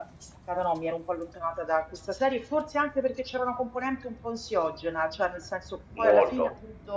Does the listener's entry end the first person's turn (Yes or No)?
No